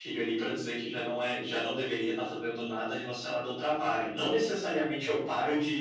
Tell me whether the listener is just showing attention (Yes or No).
Yes